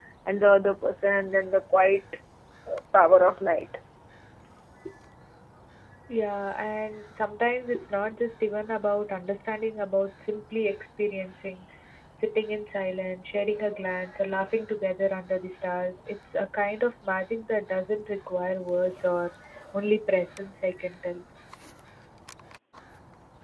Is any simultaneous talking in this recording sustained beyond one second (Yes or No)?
No